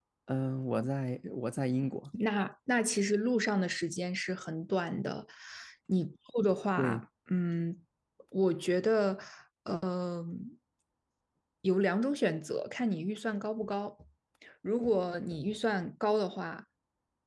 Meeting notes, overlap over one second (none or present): none